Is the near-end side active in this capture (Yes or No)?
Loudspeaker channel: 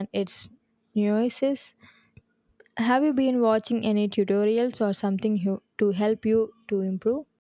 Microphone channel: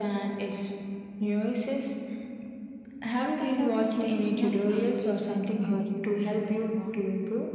Yes